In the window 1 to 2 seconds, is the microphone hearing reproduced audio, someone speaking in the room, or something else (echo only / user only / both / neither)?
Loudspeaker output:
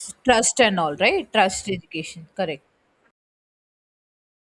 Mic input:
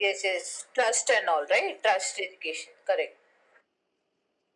echo only